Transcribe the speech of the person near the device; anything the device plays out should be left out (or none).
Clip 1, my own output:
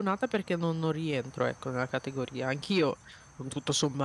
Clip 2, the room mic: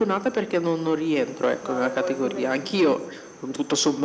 No, avevo il pomeriggio.